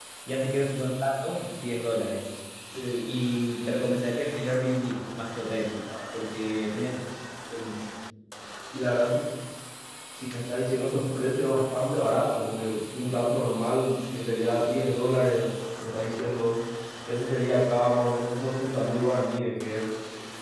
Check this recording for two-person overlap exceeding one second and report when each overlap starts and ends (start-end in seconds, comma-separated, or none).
none